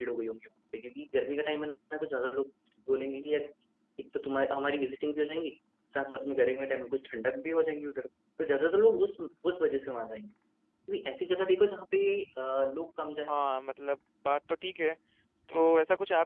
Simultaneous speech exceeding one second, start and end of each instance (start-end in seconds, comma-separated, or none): none